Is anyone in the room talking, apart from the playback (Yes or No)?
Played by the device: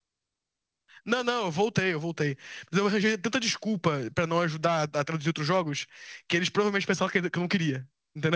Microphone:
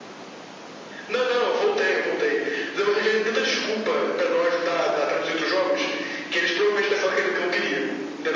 No